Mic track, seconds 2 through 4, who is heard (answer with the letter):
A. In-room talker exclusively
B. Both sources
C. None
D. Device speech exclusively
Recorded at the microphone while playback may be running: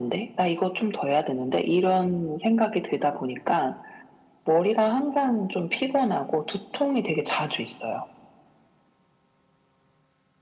D